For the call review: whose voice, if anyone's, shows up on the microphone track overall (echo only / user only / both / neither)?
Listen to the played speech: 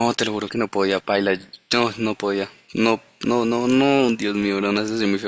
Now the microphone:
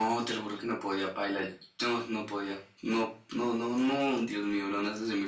echo only